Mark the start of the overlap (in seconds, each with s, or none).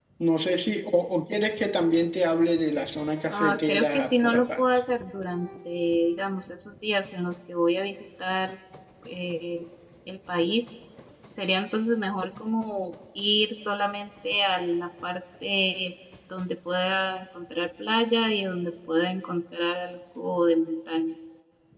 3.3 s